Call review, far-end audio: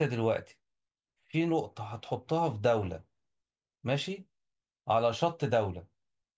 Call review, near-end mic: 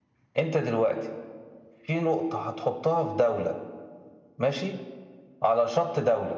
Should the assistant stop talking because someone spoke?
No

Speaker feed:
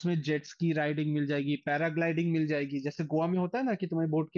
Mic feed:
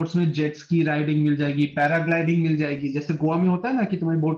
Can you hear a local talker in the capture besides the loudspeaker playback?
No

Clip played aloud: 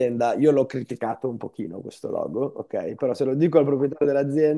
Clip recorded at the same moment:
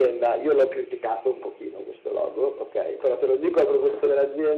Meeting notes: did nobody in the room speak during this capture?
Yes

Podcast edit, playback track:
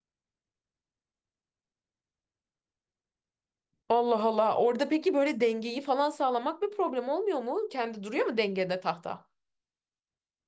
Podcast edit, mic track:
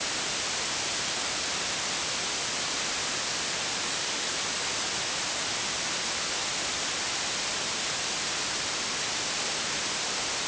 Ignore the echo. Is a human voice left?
No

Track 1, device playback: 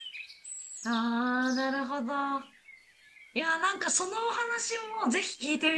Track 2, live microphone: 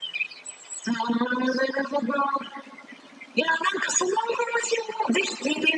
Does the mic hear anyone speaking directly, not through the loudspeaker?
No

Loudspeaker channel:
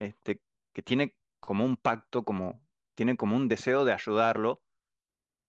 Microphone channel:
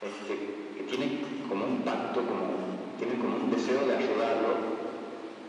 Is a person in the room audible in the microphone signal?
No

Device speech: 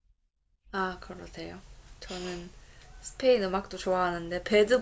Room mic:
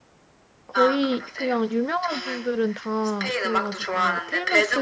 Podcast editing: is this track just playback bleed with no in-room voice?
No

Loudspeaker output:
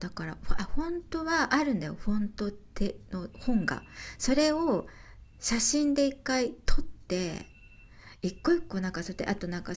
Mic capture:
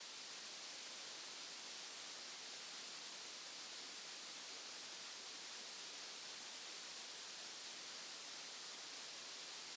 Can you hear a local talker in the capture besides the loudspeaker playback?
No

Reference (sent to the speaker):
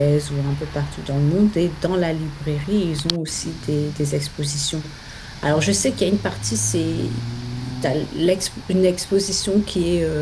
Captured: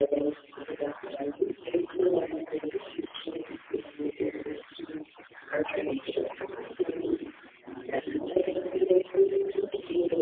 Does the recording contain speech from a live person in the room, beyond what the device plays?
No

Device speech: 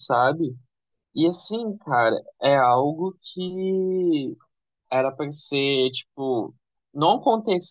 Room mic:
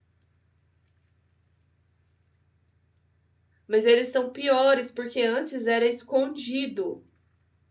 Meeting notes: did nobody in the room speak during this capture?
No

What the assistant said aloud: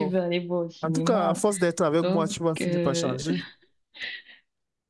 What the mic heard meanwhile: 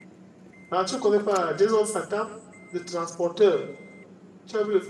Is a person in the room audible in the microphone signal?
Yes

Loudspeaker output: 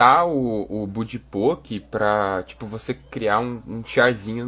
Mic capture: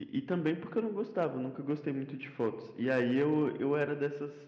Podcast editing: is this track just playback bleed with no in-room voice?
No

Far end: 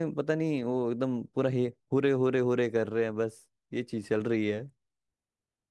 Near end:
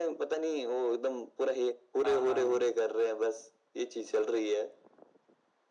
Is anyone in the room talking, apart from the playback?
Yes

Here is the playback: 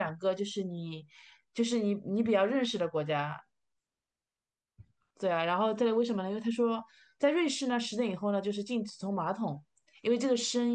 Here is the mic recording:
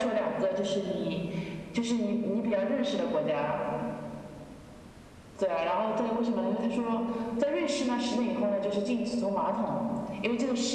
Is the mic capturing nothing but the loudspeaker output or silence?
Yes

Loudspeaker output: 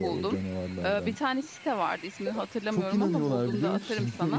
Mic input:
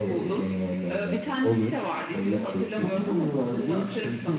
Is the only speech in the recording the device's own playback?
No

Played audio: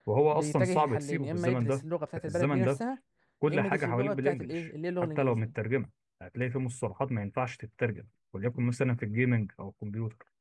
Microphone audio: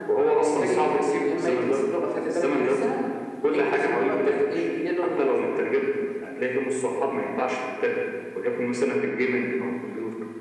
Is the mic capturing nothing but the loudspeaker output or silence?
Yes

